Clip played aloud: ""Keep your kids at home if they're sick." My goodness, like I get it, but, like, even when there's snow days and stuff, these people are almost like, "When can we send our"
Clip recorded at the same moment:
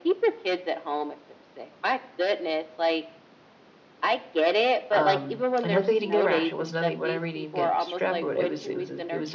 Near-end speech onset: 4.9 s

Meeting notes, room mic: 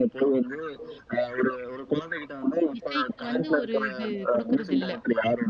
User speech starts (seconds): 2.8 s

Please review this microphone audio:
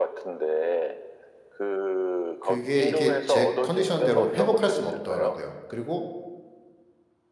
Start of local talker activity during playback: 2.4 s

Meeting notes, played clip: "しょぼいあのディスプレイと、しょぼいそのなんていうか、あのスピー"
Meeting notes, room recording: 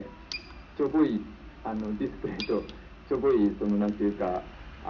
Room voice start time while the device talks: none

